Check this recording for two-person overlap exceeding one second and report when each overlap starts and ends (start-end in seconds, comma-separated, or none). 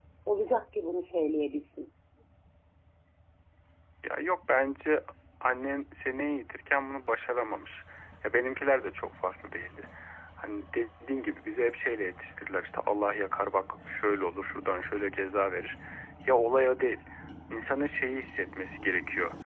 none